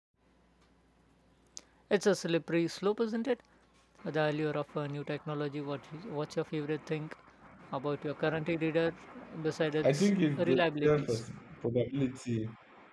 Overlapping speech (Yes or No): Yes